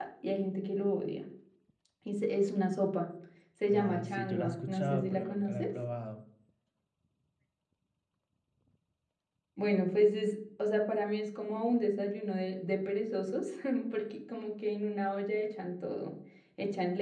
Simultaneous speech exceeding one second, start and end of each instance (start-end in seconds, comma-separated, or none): 3.8-5.6